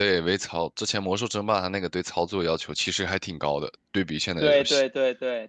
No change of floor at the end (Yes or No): No